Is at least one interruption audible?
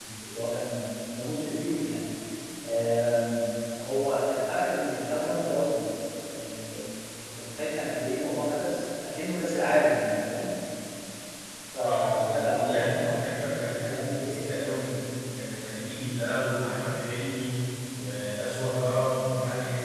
Yes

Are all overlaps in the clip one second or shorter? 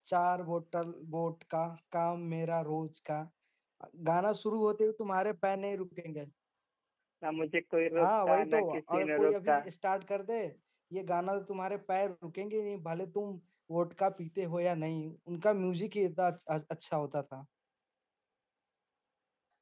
No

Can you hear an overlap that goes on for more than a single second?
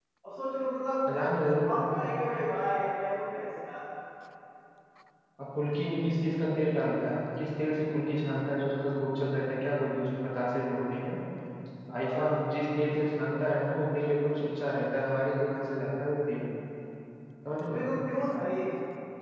No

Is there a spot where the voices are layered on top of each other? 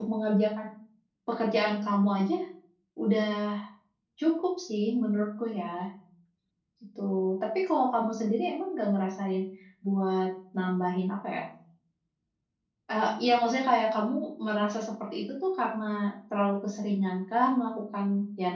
No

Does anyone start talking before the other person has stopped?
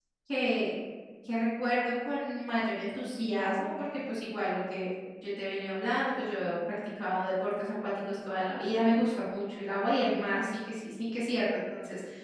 No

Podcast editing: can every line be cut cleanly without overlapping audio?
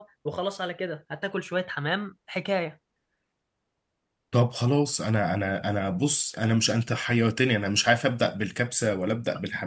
Yes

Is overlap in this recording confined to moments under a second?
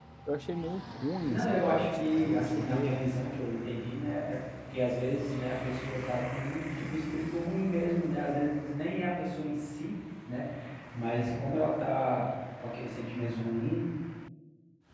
No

